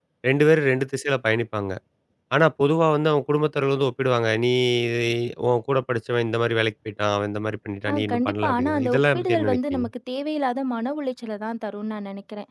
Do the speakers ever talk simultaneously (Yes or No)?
Yes